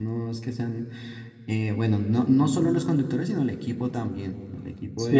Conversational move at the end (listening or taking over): taking over